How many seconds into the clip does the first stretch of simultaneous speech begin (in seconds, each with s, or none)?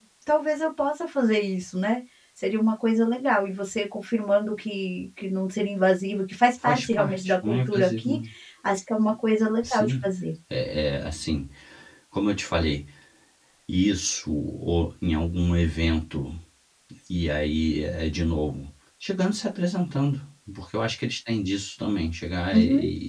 6.6 s